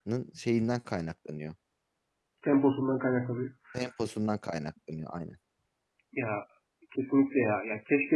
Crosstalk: none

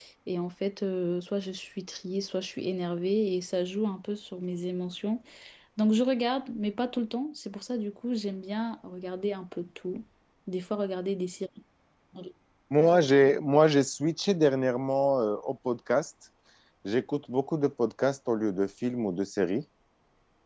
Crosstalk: none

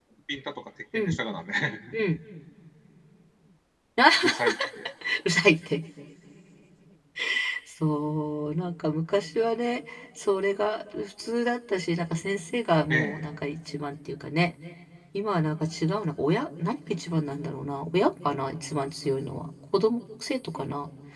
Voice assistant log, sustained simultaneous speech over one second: none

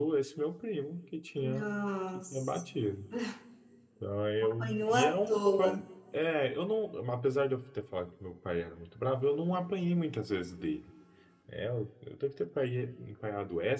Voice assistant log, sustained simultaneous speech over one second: present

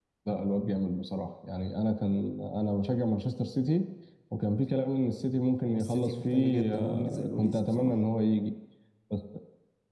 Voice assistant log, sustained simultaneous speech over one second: present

